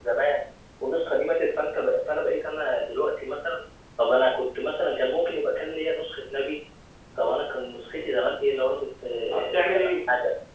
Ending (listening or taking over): taking over